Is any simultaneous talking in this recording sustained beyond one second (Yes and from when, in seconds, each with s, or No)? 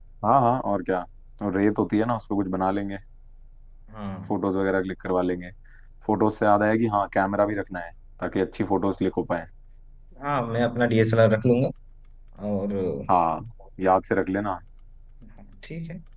No